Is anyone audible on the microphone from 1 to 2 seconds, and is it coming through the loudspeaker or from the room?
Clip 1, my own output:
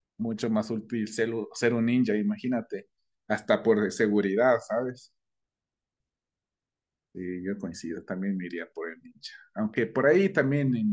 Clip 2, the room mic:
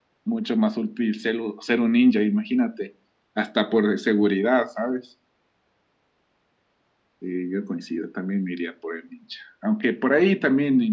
echo only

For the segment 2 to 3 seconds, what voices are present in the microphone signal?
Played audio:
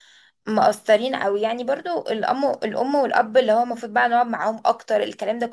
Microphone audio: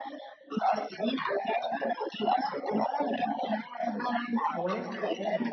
echo only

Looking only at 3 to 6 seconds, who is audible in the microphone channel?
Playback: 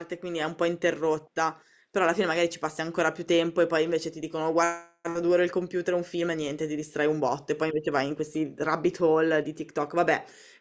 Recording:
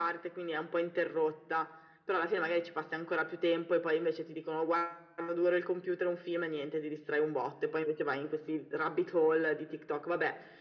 echo only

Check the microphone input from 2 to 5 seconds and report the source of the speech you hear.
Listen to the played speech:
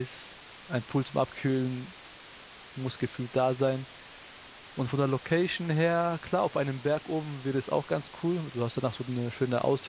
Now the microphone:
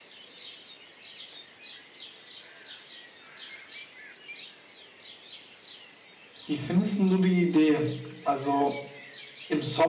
neither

